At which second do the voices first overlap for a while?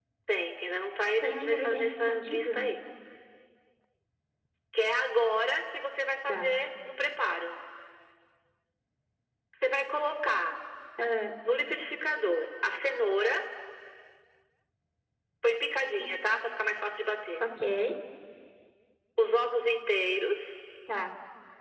1.2 s

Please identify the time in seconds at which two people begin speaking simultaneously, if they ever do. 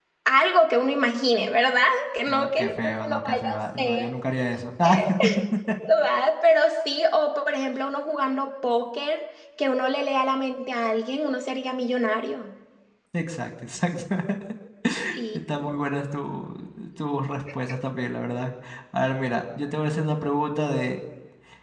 2.3 s

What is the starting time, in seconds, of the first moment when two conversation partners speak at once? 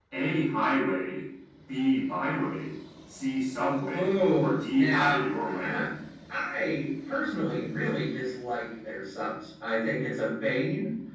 3.9 s

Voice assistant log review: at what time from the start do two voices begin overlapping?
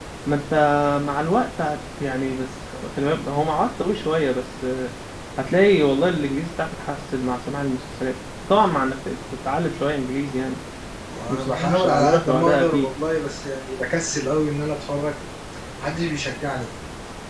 11.3 s

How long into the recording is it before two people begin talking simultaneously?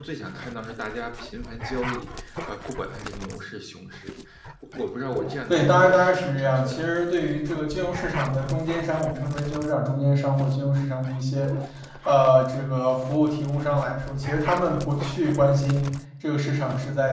5.5 s

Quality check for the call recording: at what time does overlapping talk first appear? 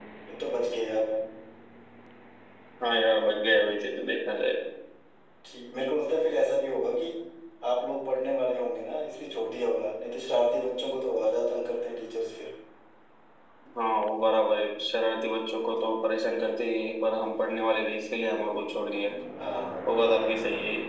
none

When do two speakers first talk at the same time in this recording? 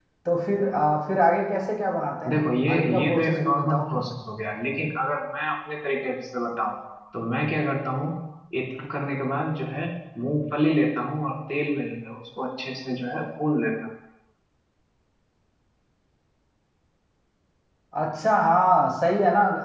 2.2 s

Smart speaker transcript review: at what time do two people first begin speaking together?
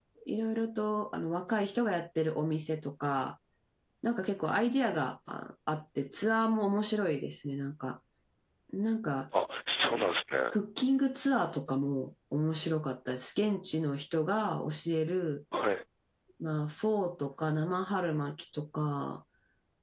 none

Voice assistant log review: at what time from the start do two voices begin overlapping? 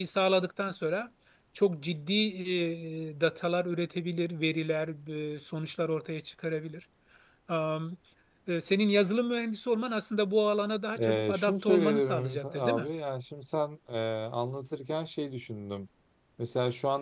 10.9 s

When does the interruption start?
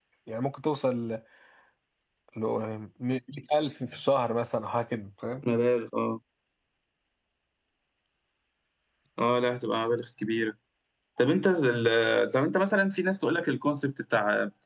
none

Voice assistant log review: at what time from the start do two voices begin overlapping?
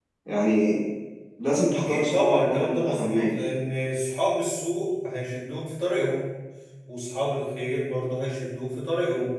1.7 s

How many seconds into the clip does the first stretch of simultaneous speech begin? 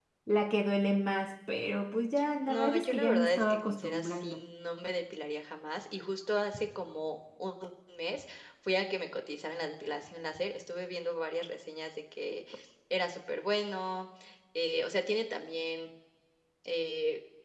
2.5 s

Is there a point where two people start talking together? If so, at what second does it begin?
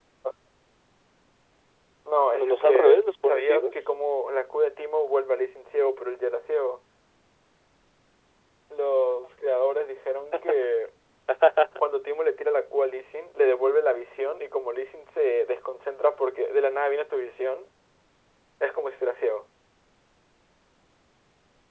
2.3 s

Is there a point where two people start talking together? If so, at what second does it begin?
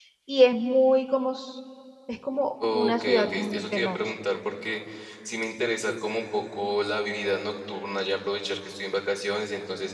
2.7 s

